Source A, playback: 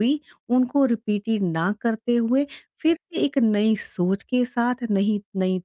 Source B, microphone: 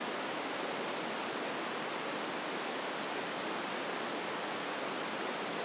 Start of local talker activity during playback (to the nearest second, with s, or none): none